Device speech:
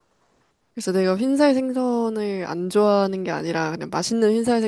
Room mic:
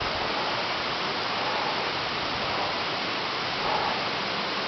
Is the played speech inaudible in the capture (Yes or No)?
Yes